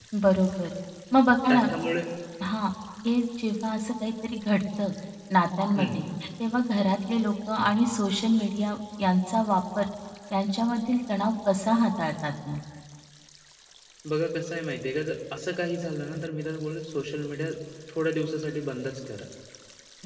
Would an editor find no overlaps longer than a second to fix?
Yes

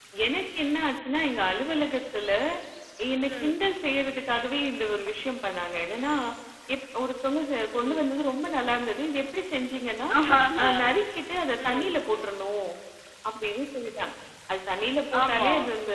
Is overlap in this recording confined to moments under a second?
Yes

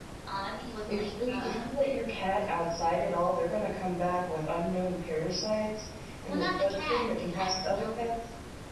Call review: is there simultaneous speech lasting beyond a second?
Yes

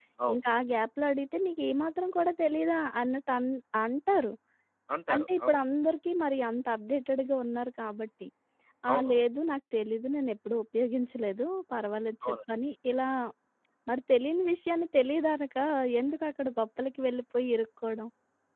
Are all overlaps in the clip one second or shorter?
Yes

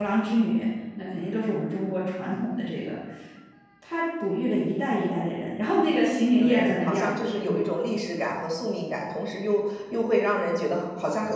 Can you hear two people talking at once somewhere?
Yes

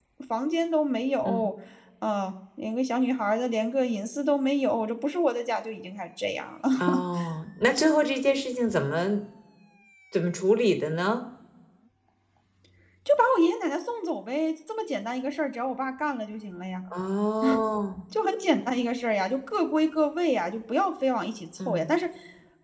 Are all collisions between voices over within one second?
Yes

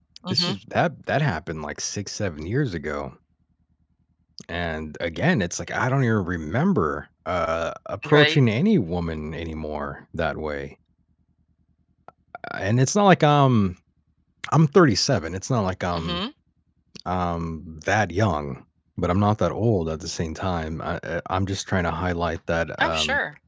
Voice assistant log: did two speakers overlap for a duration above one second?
No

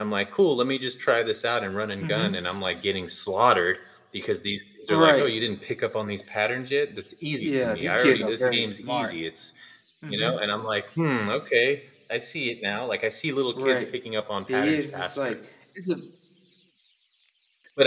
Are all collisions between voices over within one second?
No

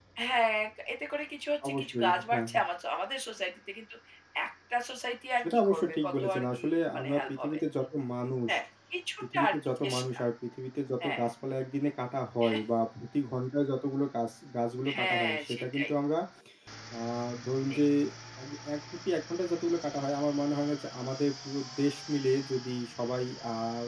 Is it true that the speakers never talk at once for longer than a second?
No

